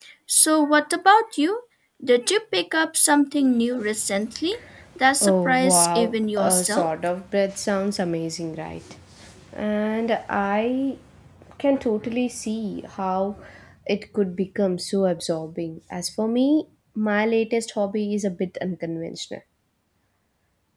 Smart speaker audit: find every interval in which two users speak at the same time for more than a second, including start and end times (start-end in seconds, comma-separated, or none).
5.2-6.9